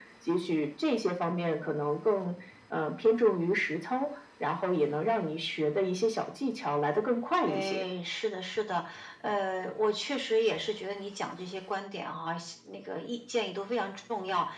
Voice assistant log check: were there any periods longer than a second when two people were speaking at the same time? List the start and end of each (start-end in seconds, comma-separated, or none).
none